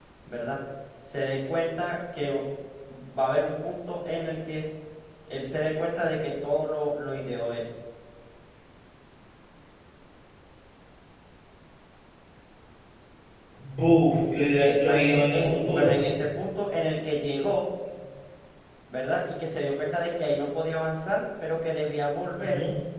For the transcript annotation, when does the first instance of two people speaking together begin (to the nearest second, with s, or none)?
15 s